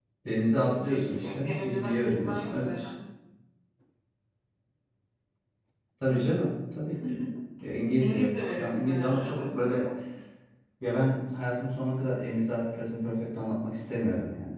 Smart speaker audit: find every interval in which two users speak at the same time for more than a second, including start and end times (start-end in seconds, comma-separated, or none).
0.5-2.9, 8.0-9.8